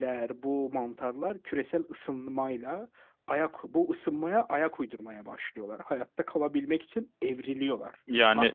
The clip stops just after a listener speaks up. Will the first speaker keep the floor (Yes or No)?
Yes